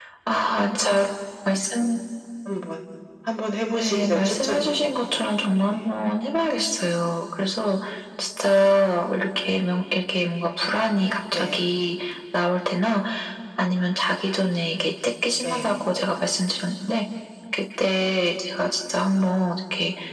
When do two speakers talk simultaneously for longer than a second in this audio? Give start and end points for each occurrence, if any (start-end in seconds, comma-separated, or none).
3.8-5.0